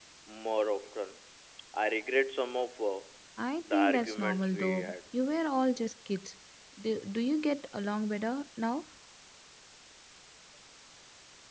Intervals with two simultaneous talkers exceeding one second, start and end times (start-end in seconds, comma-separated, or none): 3.6-4.9